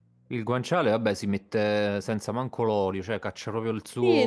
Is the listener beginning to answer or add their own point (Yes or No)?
Yes